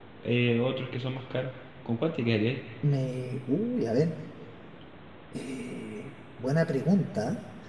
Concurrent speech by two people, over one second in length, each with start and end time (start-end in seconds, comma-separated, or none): none